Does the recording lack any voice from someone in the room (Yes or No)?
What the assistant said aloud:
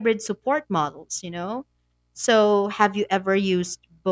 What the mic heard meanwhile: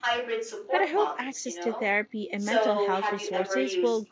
No